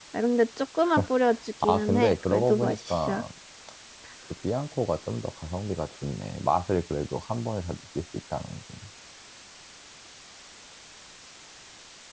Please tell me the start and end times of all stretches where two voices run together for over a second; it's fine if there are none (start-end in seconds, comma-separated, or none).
1.6-3.2